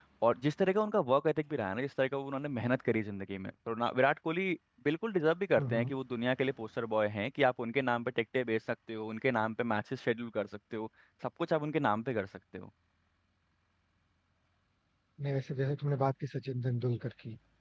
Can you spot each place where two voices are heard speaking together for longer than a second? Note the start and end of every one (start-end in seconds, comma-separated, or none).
none